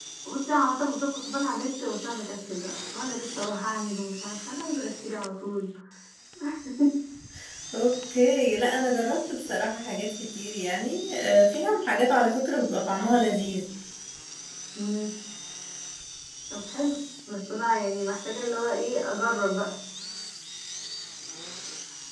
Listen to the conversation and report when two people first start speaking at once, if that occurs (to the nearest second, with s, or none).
none